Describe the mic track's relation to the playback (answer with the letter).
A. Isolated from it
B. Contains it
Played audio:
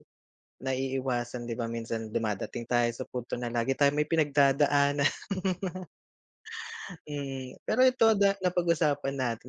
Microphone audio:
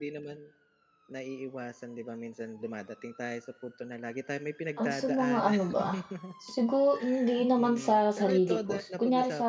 B